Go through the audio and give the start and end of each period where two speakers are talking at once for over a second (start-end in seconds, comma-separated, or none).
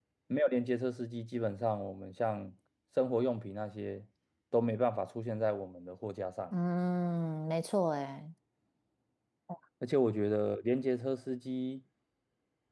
none